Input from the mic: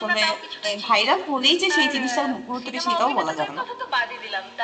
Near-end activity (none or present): present